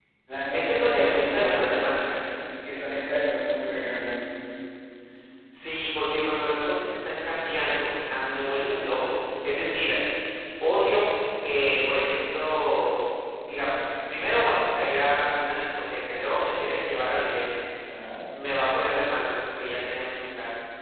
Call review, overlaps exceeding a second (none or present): present